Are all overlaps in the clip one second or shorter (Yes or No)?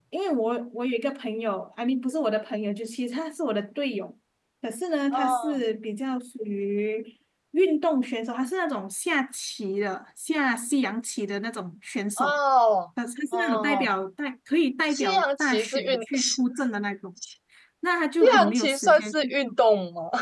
No